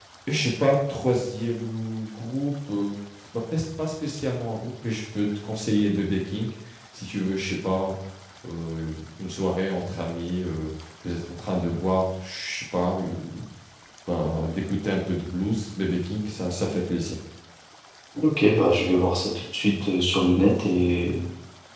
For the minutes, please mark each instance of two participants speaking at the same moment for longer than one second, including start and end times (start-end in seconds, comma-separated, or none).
none